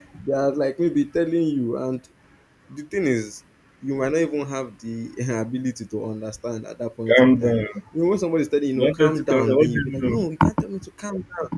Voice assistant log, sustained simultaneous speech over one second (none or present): present